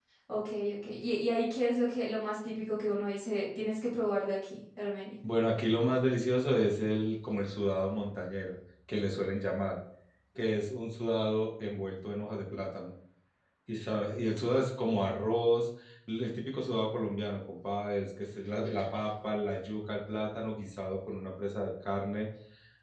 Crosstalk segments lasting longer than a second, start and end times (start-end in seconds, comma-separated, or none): none